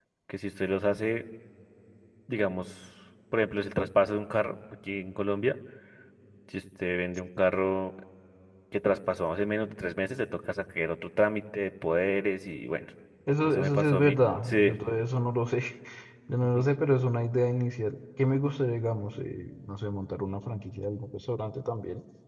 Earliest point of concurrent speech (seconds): 13 s

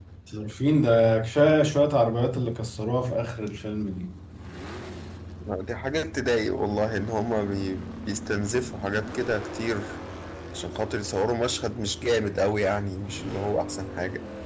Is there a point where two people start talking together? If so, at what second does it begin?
none

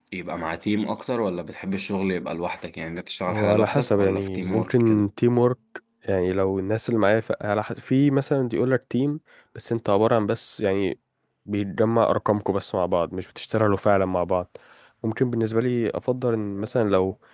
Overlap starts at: 3 s

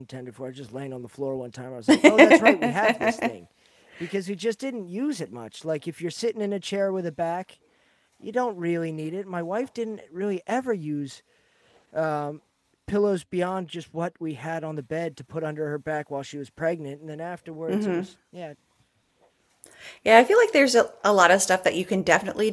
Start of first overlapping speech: 2 s

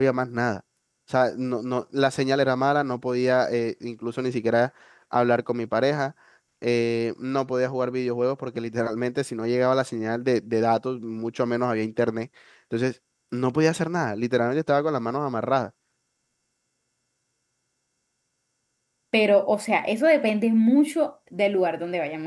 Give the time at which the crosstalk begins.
none

